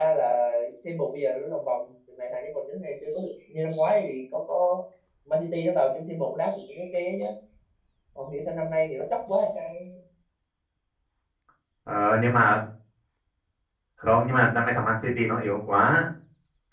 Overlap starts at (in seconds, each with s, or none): none